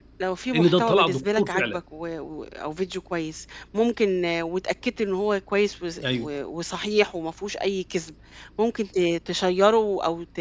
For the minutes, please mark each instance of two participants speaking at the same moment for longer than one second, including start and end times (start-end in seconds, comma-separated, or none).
0.5-1.8